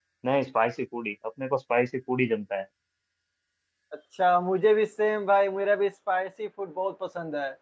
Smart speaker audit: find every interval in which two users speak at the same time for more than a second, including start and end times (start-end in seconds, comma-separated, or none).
none